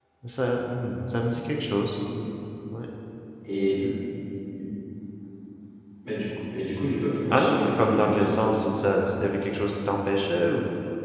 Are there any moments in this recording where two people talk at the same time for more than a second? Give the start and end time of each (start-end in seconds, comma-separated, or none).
7.3-8.6